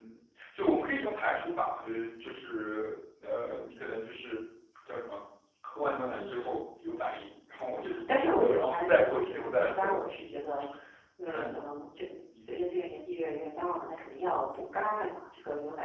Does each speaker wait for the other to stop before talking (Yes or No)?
No